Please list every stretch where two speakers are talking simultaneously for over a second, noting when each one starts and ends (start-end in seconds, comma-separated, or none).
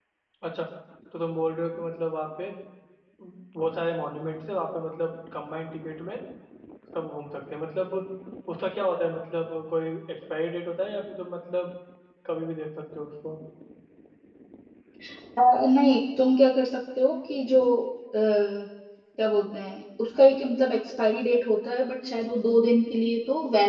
none